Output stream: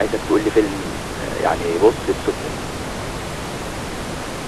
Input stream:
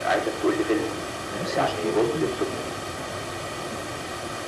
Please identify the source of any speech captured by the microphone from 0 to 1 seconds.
echo only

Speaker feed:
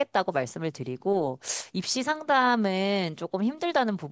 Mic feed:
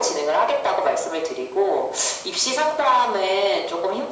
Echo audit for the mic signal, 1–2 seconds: echo only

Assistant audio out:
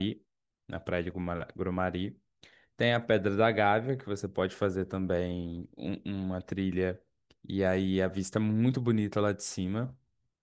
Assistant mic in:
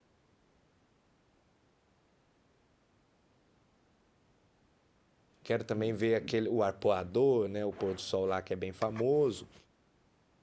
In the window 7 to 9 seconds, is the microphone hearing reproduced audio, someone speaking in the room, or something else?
user only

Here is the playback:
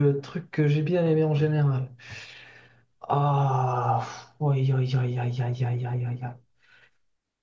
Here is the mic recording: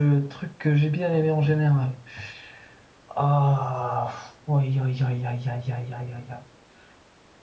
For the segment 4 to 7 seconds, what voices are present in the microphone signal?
echo only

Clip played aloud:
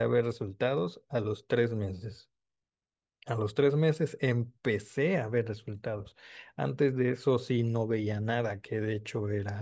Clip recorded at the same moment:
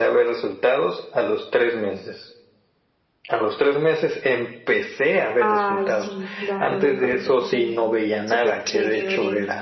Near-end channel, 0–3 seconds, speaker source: echo only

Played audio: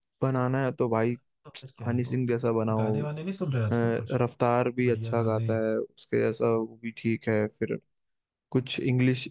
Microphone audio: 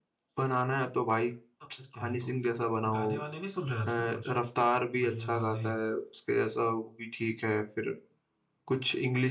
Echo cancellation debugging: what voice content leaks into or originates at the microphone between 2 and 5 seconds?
echo only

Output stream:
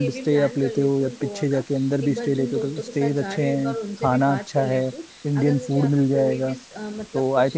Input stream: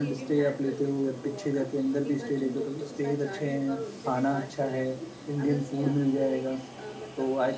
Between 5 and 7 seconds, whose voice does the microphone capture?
echo only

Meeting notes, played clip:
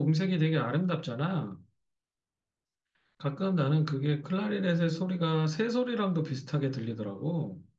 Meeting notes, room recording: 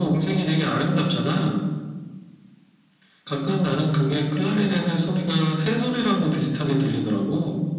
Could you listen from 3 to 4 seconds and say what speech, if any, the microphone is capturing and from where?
echo only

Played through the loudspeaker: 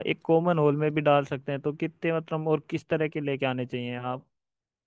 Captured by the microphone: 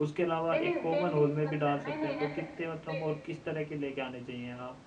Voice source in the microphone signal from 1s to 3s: both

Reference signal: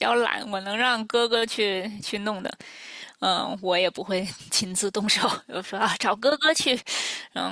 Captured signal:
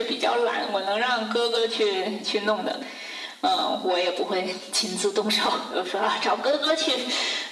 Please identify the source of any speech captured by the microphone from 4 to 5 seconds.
echo only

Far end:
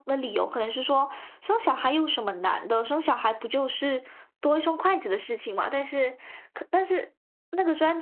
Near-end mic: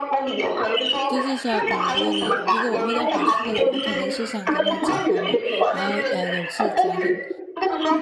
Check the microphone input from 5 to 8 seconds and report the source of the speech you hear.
both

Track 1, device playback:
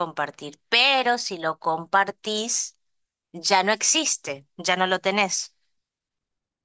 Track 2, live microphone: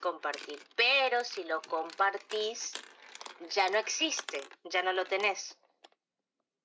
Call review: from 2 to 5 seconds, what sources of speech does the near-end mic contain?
echo only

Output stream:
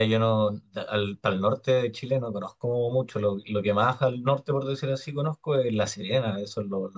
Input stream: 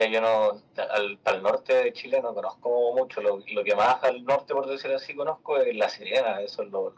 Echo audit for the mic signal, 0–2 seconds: echo only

